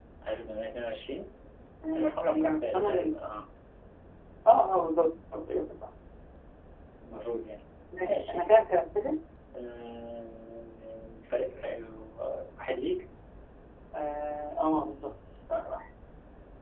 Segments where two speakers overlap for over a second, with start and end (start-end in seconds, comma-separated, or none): 1.9-3.1